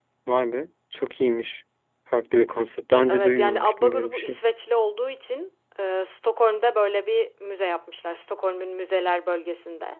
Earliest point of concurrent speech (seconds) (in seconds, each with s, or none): 3.1 s